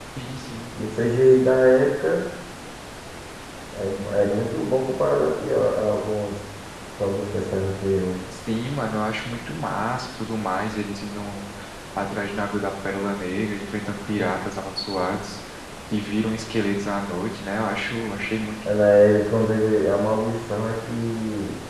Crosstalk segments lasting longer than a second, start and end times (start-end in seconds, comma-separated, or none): none